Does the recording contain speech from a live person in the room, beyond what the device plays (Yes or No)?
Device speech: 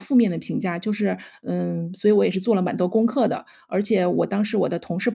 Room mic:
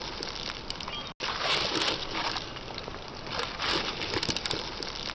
No